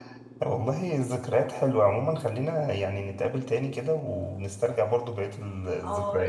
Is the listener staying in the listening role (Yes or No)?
No